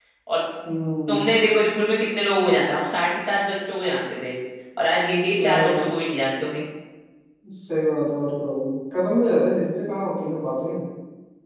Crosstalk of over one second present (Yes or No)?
No